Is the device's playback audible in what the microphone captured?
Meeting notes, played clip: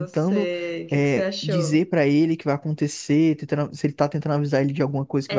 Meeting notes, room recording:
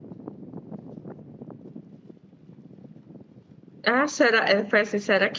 No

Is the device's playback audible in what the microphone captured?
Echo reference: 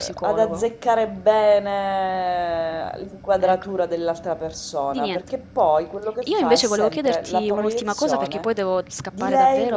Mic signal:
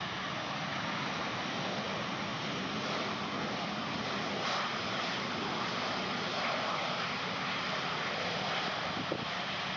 No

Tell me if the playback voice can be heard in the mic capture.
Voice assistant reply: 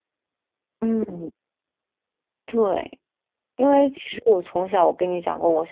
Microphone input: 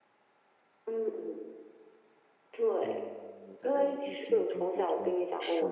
Yes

